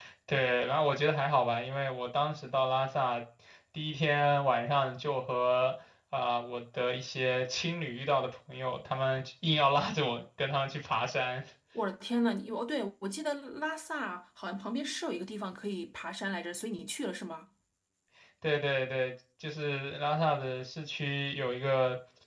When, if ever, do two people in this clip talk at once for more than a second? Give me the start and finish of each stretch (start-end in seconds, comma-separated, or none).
none